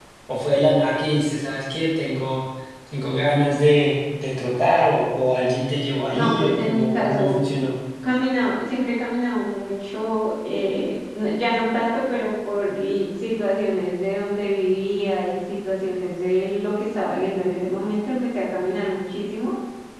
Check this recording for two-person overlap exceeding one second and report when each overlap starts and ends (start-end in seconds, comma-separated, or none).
6.1-7.4